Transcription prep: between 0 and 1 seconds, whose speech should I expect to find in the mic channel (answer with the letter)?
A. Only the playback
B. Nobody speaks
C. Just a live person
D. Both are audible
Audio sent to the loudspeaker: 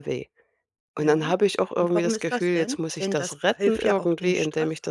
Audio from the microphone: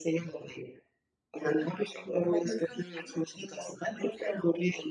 A